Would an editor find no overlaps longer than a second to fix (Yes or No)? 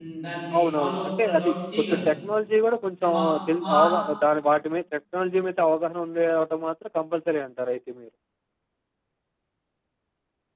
No